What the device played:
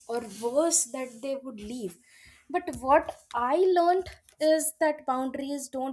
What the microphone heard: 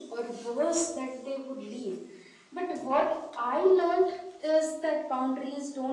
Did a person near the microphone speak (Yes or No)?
No